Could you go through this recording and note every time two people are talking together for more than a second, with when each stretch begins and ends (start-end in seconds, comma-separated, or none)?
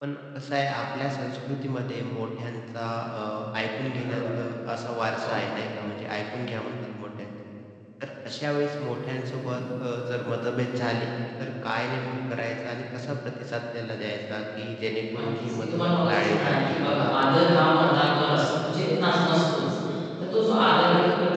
15.1-16.7